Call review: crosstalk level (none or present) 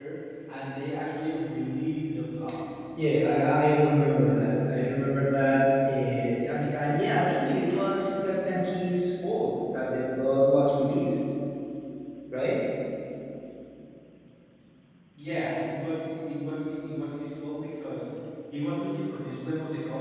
none